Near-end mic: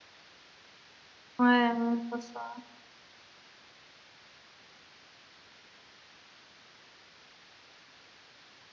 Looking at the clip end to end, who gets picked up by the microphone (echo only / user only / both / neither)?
user only